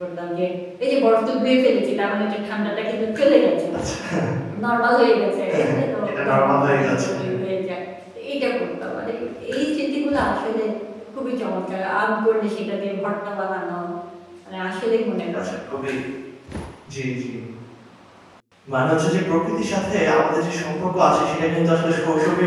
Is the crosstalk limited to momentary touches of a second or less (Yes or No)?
No